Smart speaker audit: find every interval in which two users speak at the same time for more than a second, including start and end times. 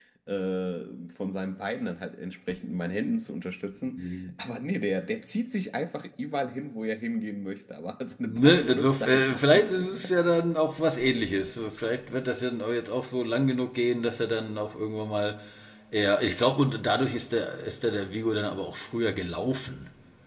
8.2-9.8

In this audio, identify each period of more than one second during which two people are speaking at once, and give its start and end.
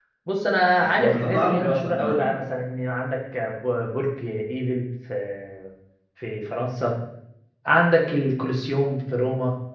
0.8-2.4

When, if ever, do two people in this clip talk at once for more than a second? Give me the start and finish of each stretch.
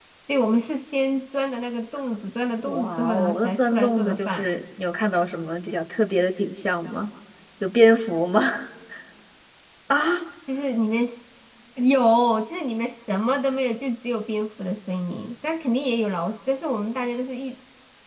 2.6-4.5

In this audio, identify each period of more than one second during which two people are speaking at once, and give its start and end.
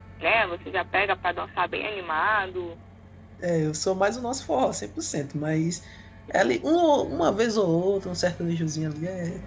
none

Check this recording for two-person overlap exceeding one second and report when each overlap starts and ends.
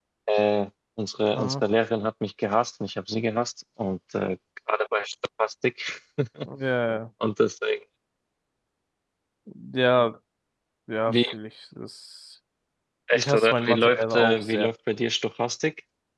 13.1-14.7

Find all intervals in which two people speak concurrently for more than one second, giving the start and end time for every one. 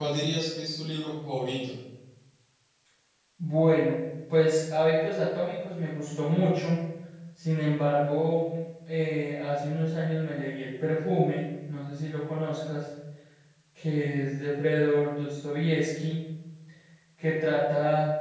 none

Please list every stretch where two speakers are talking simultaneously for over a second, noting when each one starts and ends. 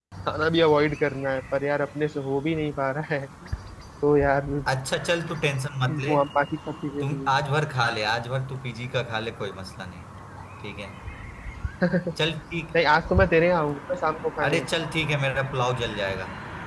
none

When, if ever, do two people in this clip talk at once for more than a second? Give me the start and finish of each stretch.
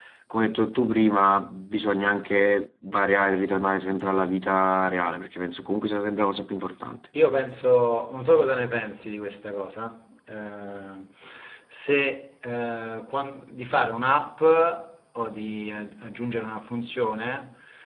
none

